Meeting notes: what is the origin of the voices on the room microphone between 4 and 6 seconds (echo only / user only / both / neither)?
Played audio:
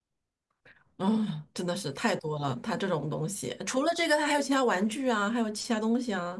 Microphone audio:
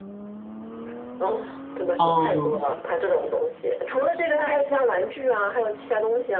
echo only